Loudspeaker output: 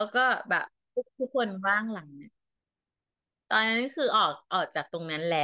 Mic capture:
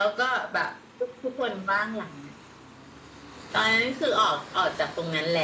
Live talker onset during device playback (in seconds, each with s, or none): none